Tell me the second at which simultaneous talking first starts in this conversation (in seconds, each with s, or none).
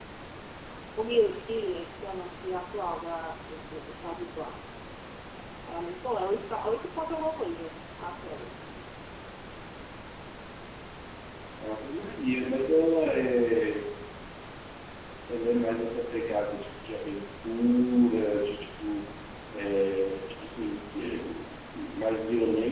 none